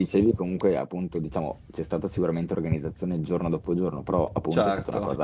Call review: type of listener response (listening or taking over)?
listening